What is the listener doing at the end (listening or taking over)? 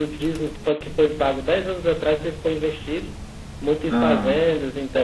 listening